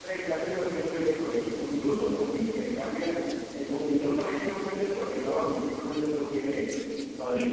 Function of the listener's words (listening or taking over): taking over